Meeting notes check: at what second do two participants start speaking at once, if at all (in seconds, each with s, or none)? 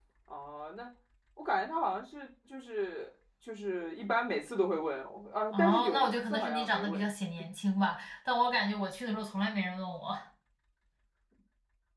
5.5 s